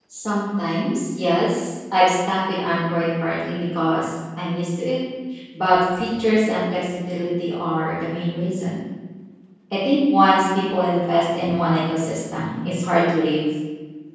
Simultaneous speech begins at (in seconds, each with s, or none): none